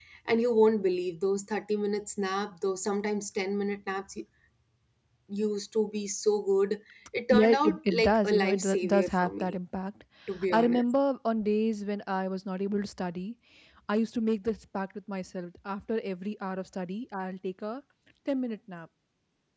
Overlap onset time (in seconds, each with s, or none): 7.3 s